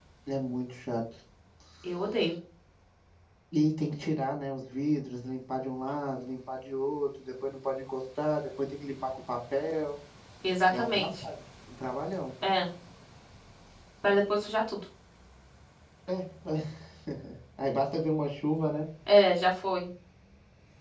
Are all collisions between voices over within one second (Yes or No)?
Yes